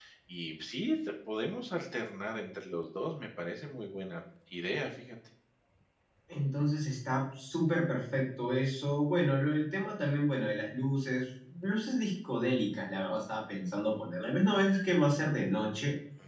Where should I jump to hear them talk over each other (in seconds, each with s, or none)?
none